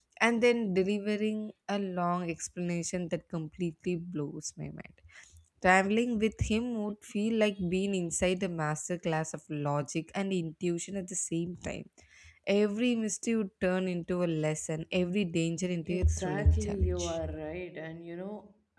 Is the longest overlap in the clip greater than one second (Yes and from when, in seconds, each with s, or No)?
Yes, from 15.8 s